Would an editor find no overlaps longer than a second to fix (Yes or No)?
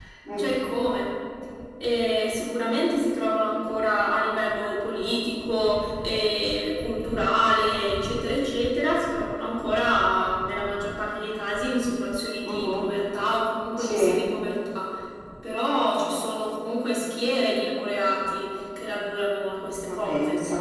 Yes